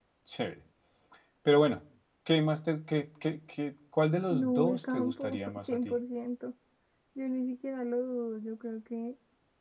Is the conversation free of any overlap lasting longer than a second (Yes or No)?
No